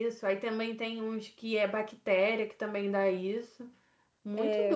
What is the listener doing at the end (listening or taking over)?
taking over